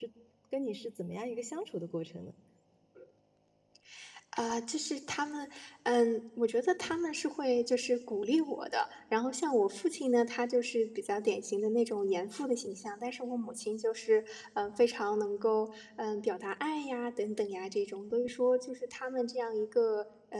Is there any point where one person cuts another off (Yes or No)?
No